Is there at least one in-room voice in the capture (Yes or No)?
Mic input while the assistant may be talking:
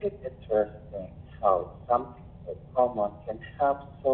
No